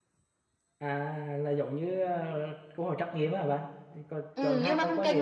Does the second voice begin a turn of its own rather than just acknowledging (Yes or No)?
Yes